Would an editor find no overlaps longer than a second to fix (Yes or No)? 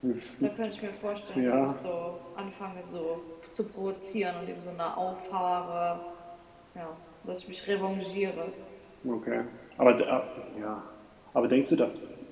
Yes